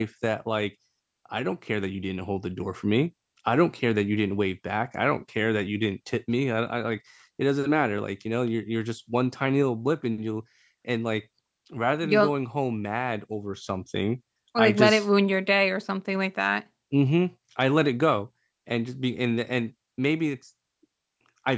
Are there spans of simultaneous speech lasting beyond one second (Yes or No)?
No